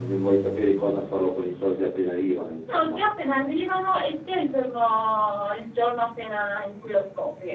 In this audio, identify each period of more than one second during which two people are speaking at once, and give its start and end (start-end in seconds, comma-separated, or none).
none